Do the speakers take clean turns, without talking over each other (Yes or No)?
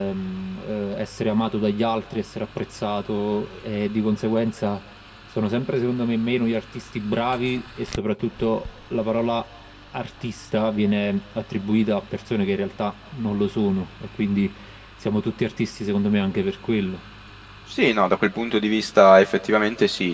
Yes